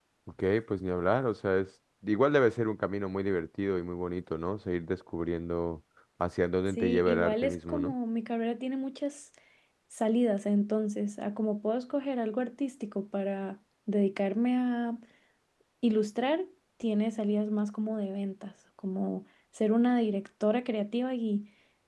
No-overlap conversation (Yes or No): No